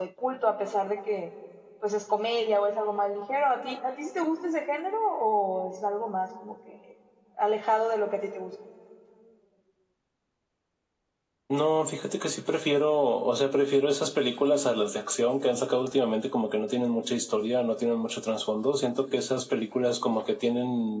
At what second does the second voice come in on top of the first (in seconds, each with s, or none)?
none